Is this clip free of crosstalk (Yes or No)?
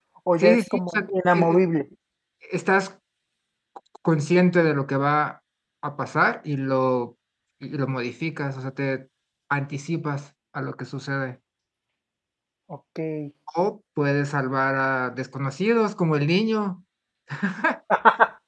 No